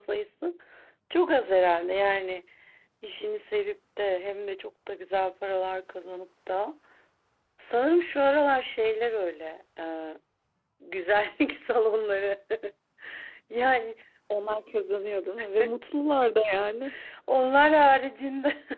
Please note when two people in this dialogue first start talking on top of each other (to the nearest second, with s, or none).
none